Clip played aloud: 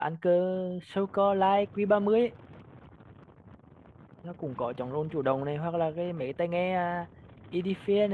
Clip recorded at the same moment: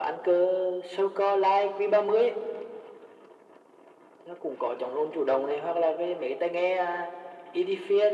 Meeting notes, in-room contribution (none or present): none